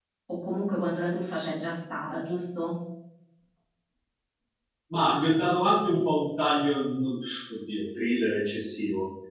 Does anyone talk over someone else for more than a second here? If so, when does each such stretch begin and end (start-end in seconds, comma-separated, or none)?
none